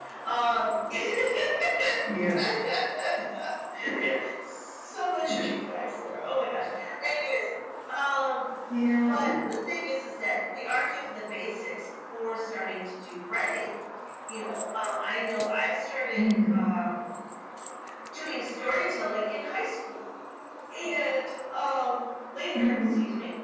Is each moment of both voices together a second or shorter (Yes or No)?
Yes